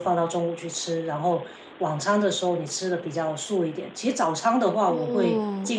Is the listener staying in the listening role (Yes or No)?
Yes